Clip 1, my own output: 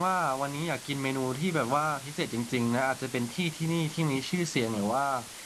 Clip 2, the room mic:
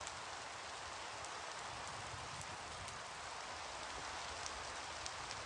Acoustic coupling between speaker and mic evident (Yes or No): No